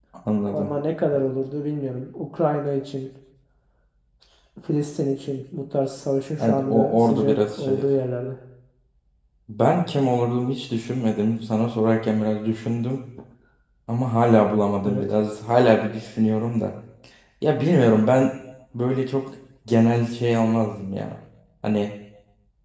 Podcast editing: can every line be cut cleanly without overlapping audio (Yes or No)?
No